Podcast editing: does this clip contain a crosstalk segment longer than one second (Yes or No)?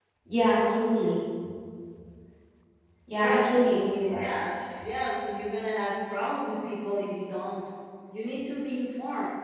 No